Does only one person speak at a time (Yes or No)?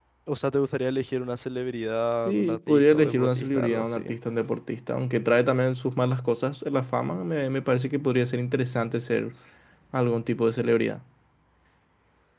No